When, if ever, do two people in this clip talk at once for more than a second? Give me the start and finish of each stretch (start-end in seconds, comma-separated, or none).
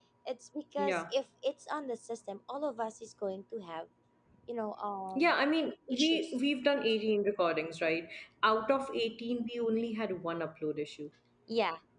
none